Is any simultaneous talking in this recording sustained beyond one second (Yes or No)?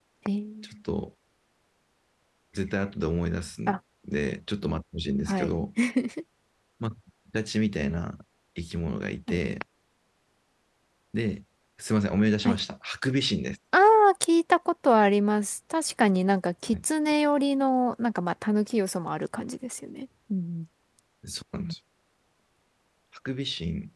No